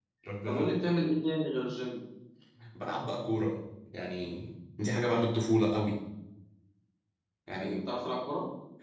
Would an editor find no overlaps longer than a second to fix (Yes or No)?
Yes